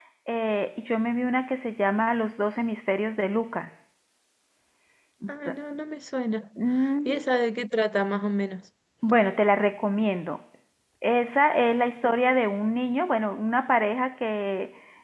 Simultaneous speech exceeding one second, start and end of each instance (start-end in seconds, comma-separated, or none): none